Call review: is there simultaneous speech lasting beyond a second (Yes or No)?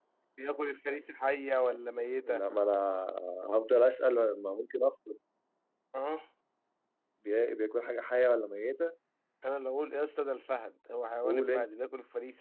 No